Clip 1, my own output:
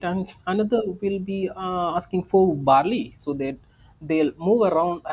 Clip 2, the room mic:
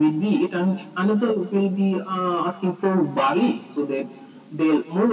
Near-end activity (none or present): none